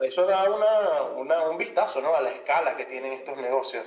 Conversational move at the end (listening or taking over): taking over